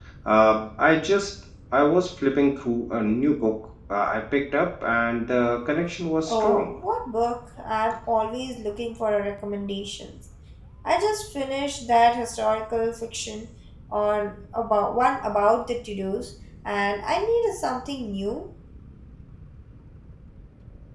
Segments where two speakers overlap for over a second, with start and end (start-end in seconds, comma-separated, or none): none